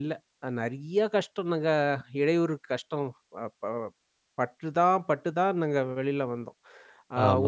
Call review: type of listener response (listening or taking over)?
taking over